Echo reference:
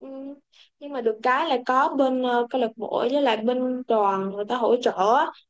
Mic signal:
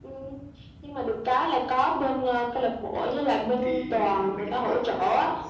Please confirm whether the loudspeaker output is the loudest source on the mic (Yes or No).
Yes